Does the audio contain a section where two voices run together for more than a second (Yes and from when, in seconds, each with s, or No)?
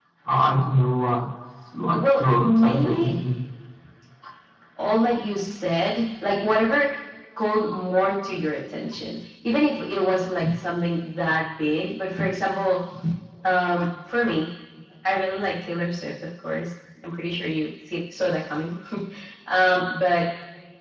Yes, from 1.9 s